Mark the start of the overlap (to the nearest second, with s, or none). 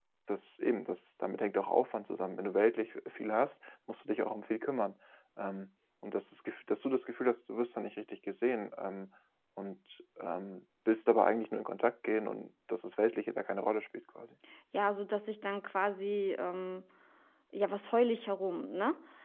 none